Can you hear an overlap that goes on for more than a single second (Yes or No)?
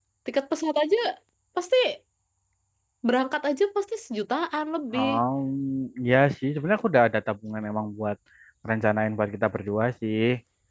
No